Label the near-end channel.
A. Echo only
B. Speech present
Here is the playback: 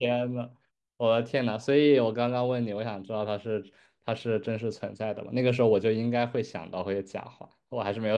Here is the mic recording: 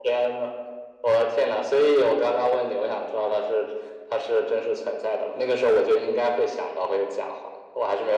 A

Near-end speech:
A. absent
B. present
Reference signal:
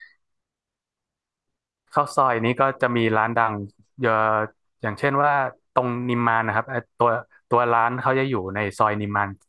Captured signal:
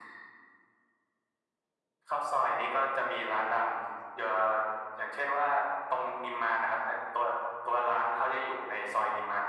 A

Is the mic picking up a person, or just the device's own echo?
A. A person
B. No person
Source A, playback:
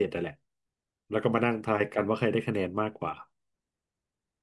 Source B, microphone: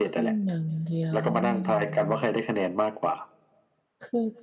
A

